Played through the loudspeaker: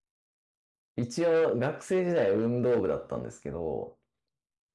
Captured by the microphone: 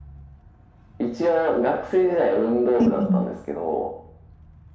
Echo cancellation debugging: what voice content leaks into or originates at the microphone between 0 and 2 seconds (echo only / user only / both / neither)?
echo only